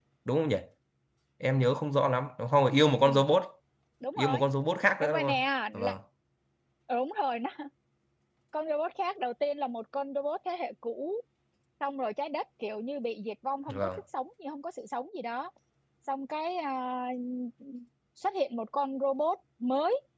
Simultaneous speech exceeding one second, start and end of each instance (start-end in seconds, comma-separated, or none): none